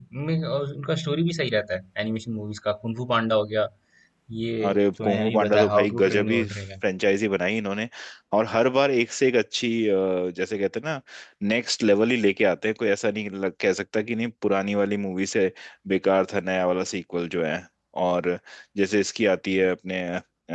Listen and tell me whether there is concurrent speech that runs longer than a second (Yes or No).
Yes